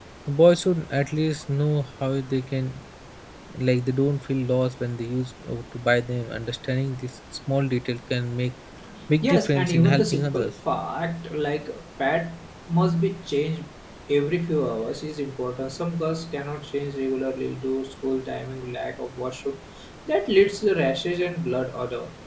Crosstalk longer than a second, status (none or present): present